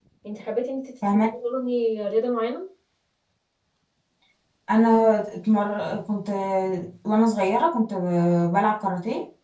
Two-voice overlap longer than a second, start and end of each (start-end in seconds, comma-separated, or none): none